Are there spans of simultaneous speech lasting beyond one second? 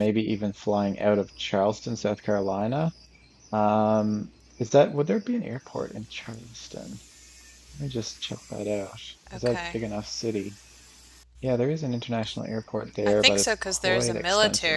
Yes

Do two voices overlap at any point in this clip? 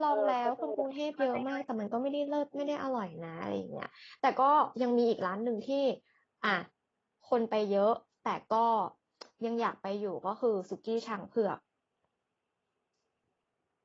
Yes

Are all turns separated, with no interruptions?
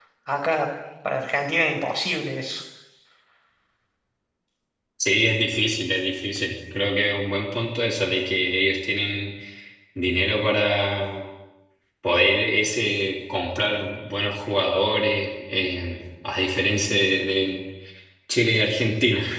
Yes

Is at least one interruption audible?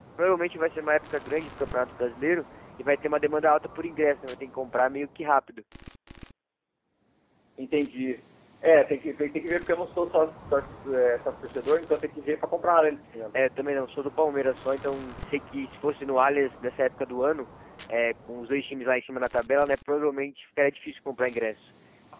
No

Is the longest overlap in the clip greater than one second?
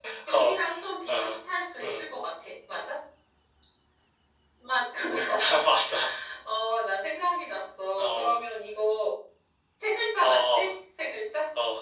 No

